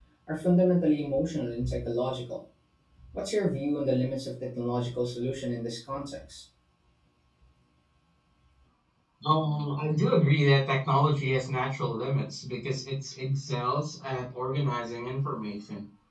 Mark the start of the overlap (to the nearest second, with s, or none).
none